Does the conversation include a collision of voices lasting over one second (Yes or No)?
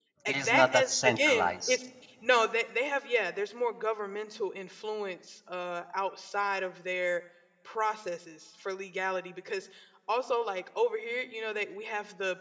Yes